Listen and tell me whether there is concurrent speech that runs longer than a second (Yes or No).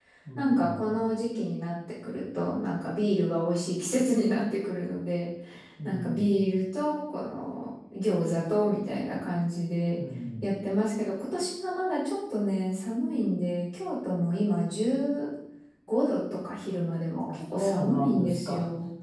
Yes